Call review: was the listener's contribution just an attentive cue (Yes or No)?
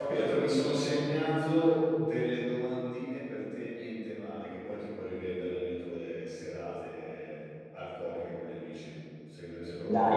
No